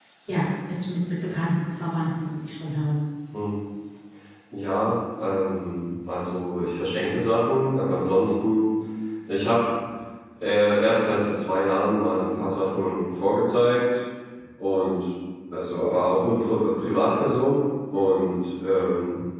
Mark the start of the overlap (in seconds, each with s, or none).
none